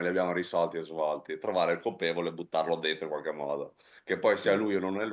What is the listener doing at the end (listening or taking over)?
listening